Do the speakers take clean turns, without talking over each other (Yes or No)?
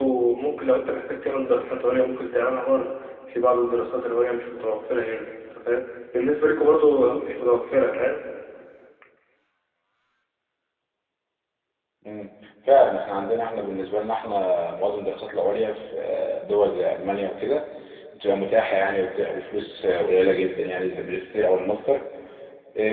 Yes